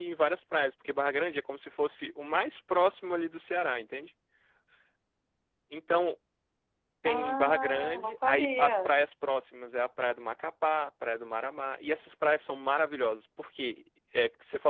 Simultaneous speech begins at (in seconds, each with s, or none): 7.0 s